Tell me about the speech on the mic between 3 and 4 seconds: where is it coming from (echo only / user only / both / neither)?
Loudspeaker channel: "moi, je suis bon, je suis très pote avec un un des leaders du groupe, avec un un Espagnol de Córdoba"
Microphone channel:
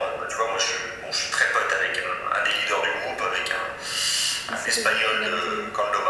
echo only